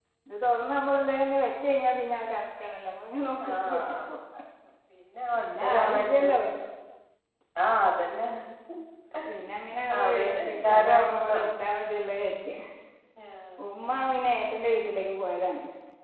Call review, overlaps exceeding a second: present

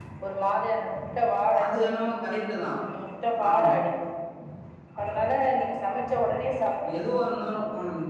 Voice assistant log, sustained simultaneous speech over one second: none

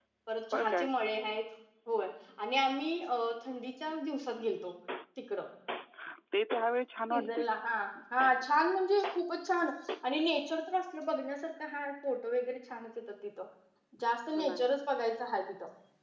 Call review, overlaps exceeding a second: none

